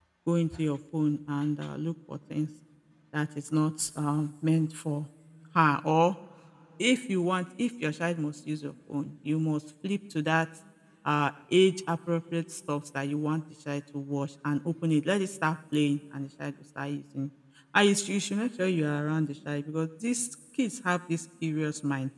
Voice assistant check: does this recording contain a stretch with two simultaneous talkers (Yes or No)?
No